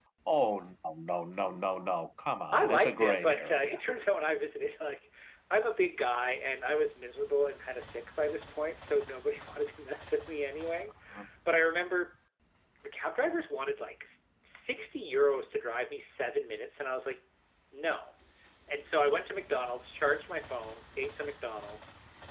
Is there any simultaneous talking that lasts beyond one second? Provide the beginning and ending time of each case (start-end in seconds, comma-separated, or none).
2.5-3.8